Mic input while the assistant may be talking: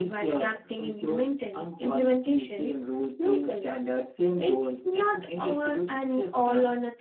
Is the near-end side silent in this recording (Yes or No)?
Yes